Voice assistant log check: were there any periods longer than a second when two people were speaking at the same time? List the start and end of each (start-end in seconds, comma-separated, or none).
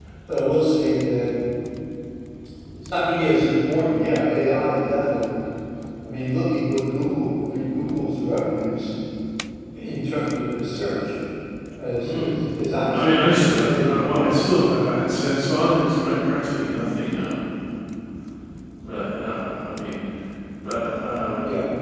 12.9-14.3